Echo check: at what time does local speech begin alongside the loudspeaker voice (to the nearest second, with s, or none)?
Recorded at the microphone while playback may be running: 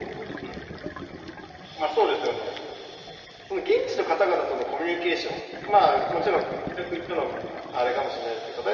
none